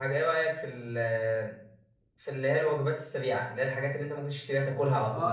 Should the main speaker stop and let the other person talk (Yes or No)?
Yes